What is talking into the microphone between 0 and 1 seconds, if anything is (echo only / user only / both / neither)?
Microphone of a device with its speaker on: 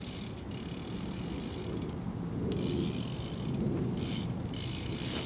neither